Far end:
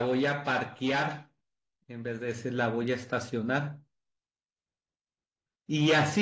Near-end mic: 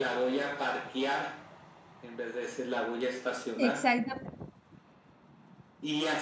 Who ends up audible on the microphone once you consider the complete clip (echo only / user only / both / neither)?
both